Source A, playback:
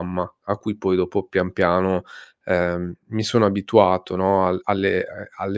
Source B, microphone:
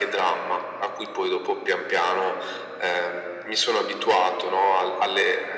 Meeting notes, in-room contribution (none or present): none